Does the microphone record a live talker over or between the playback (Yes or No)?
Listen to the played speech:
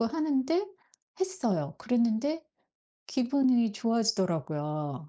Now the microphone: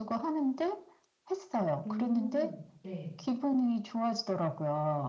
Yes